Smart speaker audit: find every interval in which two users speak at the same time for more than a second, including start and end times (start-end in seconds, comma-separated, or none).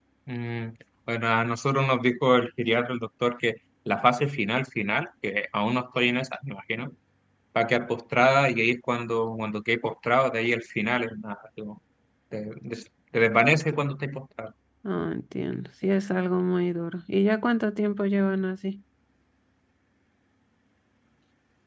none